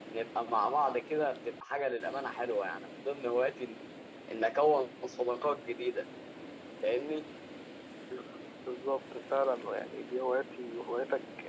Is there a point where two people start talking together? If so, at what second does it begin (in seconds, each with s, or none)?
none